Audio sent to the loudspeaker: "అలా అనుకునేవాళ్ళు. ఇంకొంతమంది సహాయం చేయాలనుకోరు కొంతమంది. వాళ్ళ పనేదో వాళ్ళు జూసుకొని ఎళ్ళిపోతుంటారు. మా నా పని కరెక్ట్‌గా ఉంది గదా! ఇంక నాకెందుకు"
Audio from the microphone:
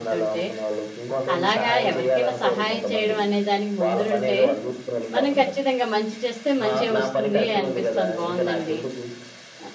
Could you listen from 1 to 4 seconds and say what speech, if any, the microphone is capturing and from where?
both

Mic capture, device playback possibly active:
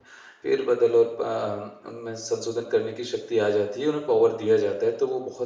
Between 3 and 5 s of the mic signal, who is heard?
user only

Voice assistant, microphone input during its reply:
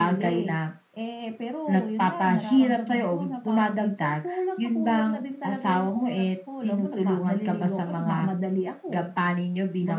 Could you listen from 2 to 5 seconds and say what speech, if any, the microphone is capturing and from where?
echo only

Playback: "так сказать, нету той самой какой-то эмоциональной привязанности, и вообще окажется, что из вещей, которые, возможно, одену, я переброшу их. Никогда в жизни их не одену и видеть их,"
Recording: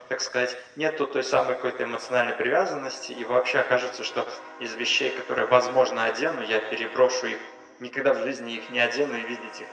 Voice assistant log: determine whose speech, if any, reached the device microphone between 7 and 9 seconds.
echo only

